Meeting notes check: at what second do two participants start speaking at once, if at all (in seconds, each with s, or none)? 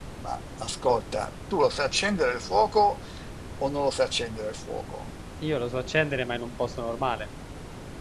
none